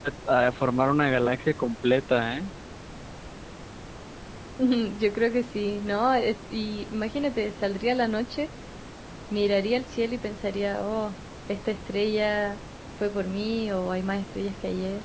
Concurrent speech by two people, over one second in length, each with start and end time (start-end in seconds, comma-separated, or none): none